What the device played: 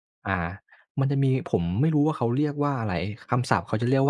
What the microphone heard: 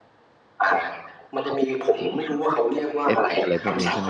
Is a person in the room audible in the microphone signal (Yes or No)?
Yes